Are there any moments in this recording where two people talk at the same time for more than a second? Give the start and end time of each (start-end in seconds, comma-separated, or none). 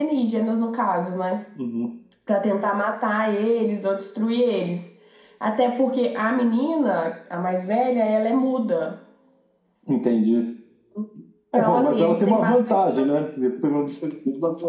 11.6-12.9